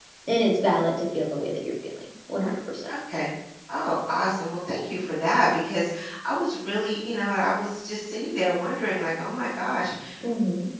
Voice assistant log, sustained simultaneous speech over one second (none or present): none